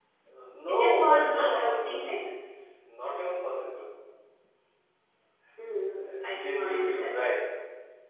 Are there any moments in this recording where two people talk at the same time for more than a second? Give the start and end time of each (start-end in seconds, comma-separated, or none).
0.7-2.2, 6.0-7.3